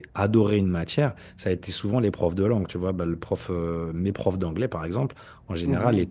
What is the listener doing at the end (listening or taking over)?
listening